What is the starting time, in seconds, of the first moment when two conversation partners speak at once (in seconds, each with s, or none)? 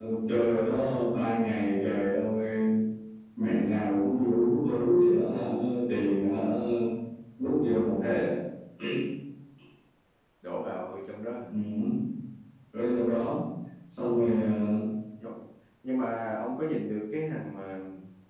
none